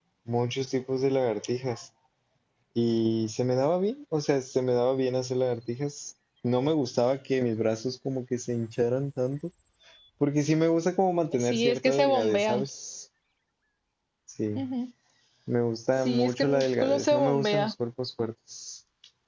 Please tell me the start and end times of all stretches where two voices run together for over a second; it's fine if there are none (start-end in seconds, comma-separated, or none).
11.4-12.7, 15.9-17.7